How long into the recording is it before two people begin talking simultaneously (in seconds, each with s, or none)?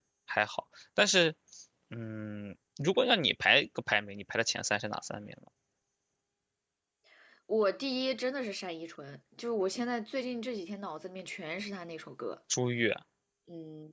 none